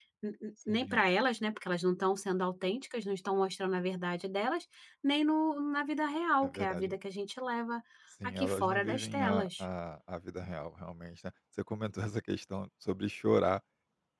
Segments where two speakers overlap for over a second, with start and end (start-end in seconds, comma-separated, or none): 8.2-9.6